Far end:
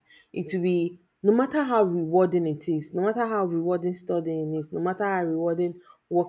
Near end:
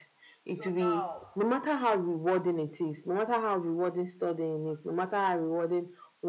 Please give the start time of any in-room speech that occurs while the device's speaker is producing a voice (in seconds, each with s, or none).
0.4 s